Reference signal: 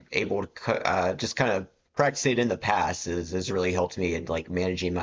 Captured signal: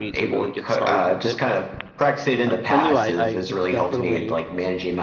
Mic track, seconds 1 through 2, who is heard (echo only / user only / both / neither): both